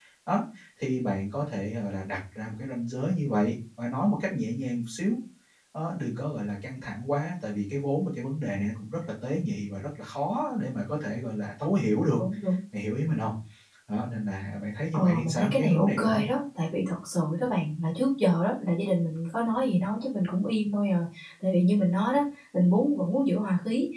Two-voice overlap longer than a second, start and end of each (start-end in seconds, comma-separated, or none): 14.9-16.2